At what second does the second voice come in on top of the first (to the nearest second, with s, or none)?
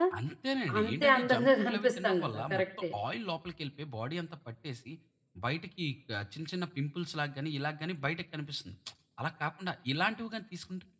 1 s